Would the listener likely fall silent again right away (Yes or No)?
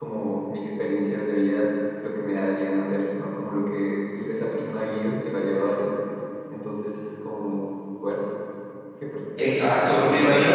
No